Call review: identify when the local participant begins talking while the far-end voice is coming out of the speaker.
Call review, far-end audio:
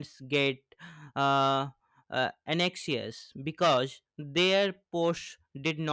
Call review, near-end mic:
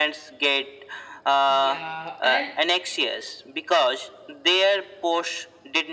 1 s

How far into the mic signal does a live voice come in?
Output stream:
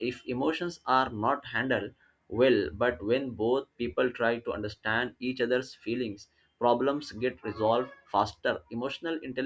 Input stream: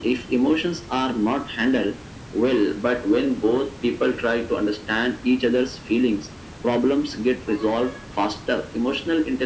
none

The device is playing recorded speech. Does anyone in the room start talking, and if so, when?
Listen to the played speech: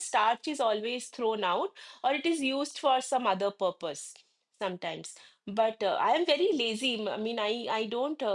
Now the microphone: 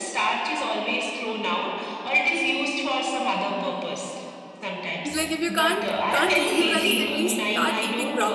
5 s

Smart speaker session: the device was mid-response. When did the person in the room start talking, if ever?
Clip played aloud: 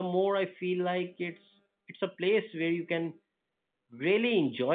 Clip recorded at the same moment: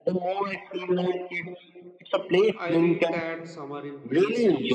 3 s

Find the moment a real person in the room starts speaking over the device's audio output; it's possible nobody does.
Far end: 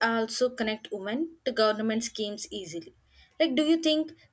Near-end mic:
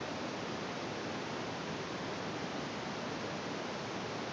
none

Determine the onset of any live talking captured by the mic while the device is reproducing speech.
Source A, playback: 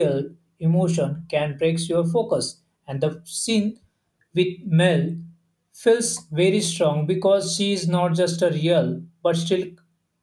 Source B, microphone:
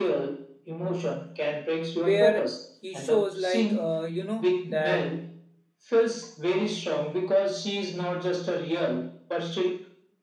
2 s

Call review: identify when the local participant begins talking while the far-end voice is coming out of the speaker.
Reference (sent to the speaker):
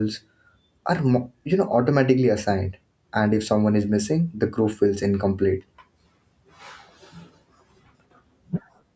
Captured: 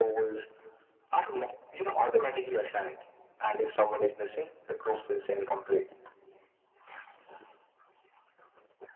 none

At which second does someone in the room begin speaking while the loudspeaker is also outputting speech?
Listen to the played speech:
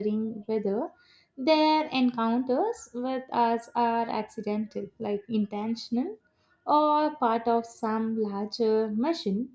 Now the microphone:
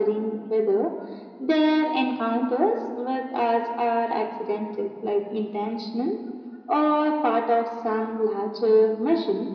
none

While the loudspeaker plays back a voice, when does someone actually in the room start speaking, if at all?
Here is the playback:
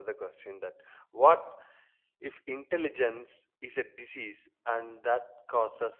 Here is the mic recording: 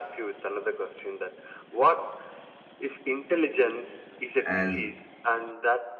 4 s

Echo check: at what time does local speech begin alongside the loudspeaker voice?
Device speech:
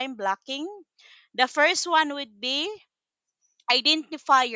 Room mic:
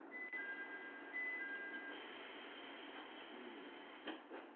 none

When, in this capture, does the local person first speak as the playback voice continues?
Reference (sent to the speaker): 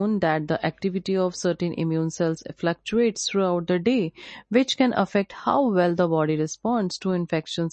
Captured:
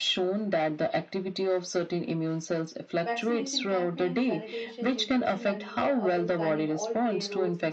3 s

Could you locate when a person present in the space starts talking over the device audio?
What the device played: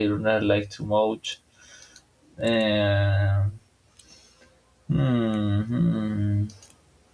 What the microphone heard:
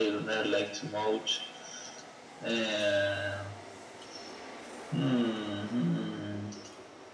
none

